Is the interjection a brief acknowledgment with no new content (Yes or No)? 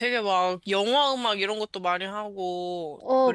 No